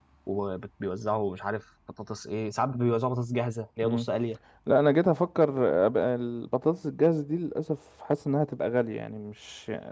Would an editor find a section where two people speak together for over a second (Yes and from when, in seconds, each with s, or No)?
No